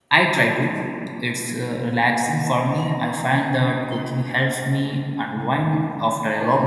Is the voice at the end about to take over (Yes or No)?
Yes